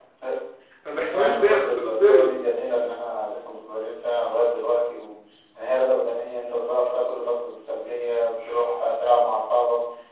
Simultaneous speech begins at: 1.1 s

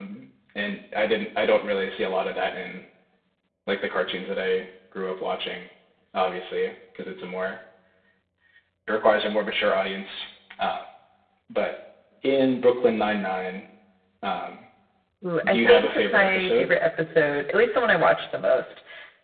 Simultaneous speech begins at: 15.5 s

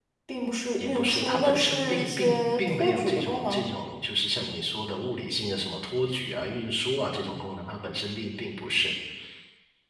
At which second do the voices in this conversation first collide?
0.8 s

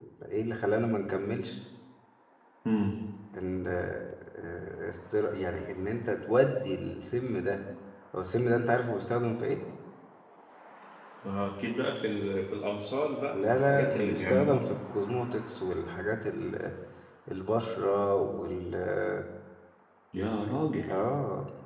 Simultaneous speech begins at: 13.3 s

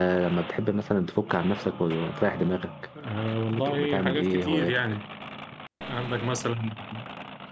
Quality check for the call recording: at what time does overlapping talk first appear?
3.5 s

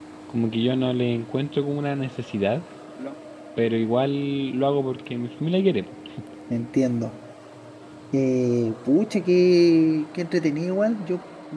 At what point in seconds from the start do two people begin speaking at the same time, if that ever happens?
none

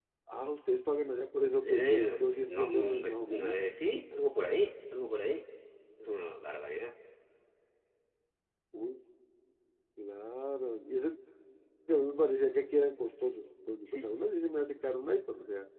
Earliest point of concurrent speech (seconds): 1.6 s

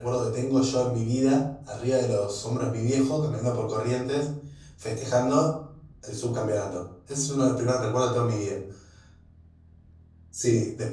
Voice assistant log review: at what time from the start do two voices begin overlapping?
none

